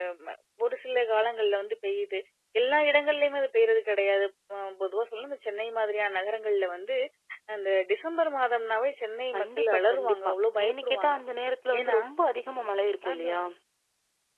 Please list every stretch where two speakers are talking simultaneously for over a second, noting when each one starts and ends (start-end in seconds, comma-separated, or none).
9.3-11.2